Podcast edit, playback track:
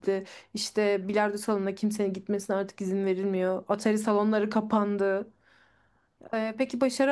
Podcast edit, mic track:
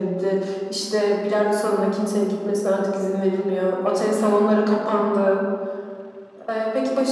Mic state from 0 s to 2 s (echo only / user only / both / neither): echo only